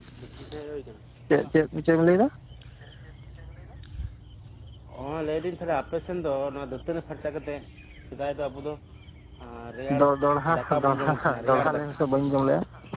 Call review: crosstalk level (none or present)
present